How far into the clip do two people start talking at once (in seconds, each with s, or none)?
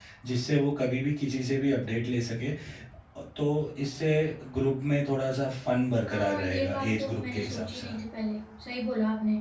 6.1 s